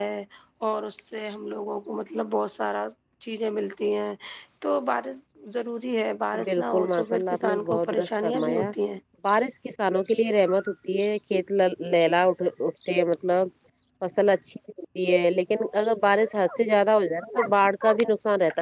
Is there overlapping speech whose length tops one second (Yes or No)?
Yes